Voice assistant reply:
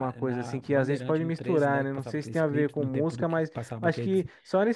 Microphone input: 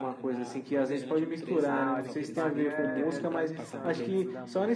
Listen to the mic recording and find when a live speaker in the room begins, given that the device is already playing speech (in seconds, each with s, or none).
1.7 s